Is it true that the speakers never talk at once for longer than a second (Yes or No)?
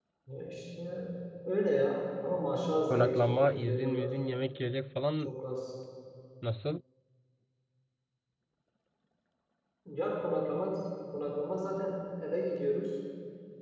No